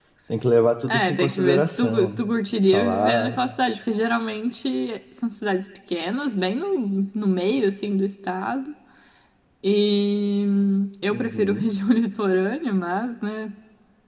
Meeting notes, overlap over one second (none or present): present